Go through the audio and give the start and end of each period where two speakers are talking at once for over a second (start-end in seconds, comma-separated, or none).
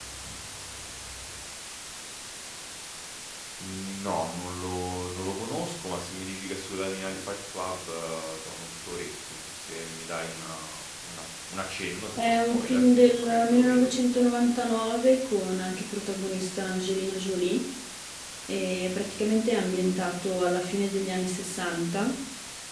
12.2-13.9